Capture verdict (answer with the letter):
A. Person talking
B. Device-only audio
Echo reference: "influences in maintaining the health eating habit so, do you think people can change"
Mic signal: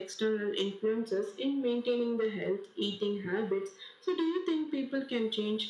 B